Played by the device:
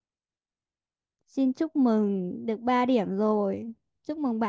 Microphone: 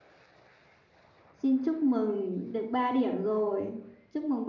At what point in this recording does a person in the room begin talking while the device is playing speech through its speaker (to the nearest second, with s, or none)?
none